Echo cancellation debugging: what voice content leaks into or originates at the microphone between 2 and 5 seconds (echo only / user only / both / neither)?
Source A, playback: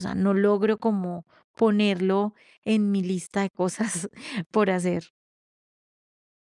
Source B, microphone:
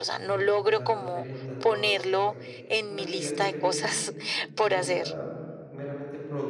both